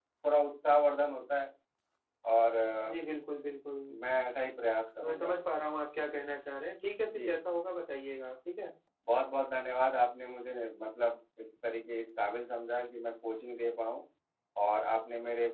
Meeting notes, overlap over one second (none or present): none